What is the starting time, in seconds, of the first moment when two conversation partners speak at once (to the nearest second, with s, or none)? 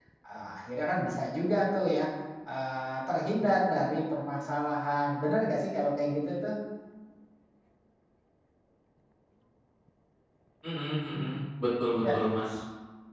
none